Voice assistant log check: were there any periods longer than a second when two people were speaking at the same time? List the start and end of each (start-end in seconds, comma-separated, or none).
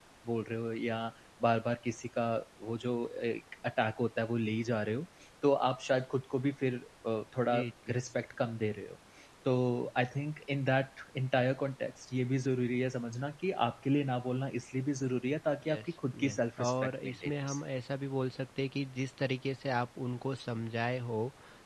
16.2-17.6